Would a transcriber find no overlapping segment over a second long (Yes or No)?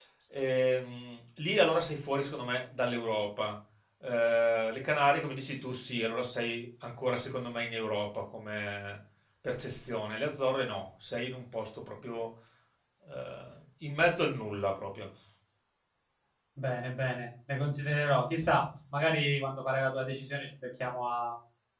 Yes